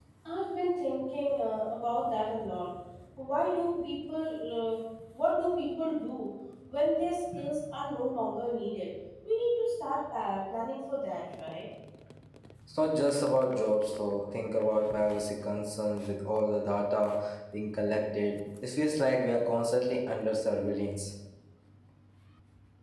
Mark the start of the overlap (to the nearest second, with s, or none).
none